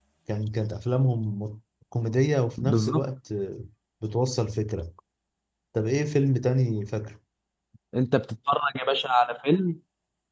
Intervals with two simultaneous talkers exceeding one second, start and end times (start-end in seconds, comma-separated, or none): none